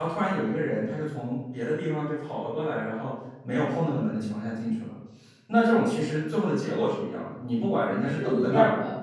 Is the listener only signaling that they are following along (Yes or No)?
No